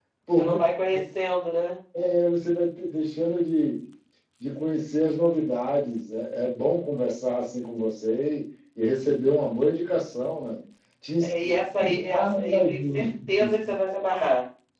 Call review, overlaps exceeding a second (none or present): present